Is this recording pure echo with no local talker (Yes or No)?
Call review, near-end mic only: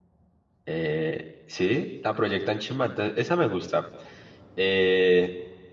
No